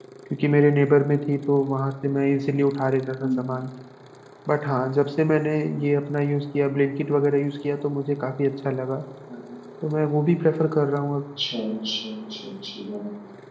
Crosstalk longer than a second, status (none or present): none